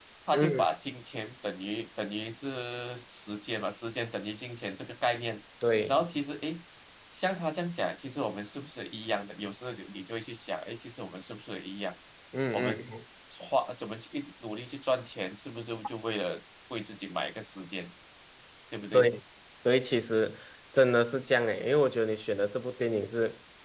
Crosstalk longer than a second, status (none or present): none